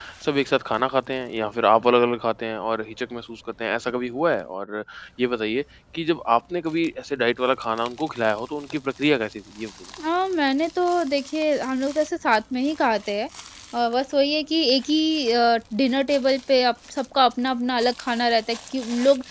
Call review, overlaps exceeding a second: none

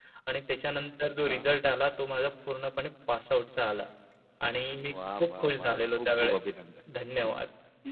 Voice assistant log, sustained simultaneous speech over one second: present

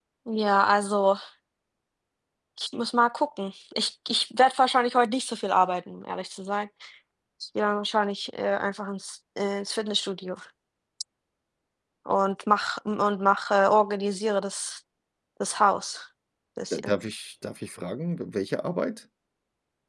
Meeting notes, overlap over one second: none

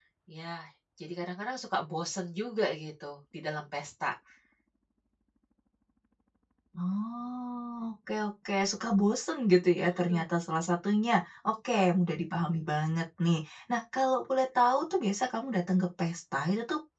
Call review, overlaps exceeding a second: none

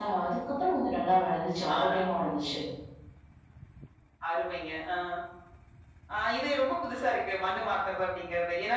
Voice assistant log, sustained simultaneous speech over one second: none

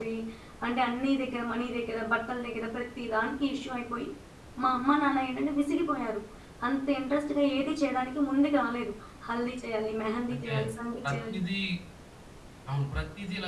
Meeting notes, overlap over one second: none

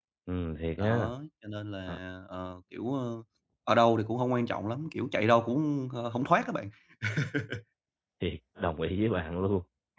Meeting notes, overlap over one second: none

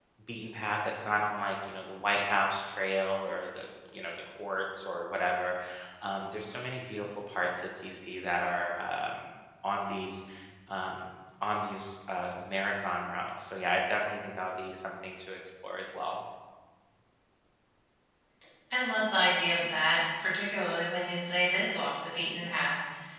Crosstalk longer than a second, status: none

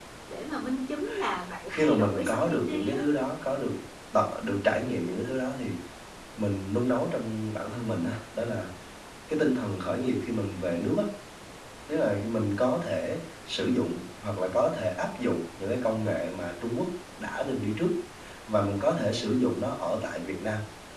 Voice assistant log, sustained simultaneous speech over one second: present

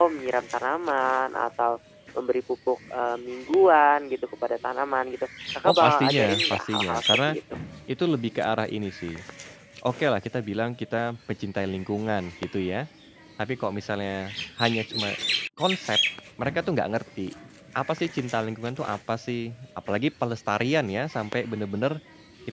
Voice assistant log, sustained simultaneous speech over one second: present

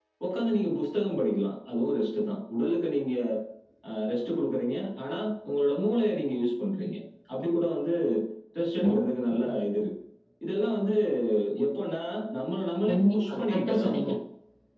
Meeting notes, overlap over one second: present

